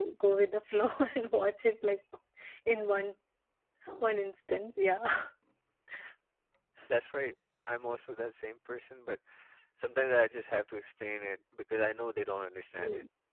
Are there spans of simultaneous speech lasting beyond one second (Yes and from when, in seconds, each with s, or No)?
No